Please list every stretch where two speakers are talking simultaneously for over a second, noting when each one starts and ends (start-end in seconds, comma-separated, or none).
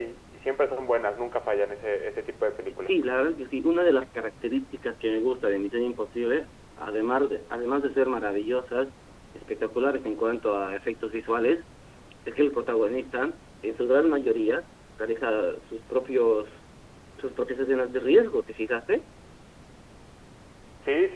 none